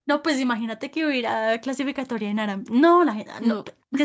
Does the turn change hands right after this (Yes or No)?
No